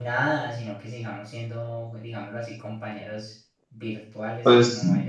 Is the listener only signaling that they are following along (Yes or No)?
No